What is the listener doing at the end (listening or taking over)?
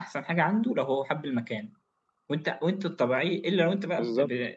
listening